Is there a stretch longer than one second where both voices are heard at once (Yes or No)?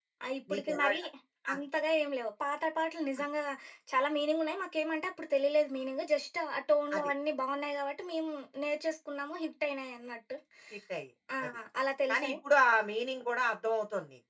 No